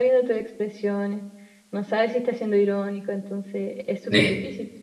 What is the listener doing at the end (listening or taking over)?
taking over